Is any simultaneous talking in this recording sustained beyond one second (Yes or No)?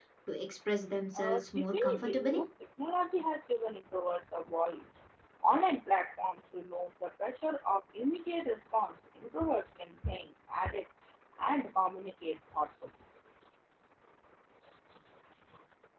Yes